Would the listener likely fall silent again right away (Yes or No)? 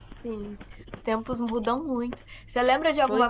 Yes